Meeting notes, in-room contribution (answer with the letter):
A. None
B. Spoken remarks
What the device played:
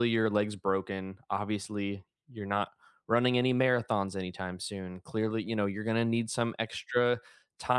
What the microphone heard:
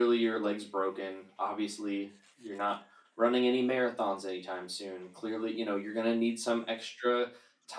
A